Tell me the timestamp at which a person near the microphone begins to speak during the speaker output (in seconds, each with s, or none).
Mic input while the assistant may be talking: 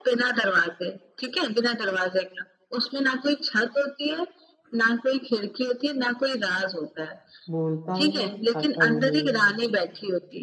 7.5 s